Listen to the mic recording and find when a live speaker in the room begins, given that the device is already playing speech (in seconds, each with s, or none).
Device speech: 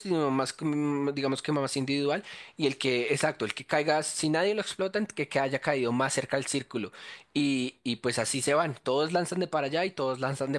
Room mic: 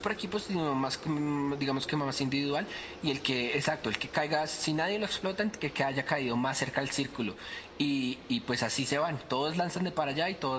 none